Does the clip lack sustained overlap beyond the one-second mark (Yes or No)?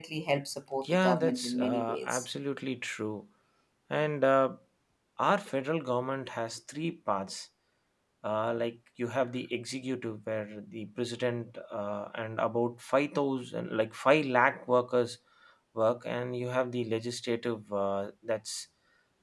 No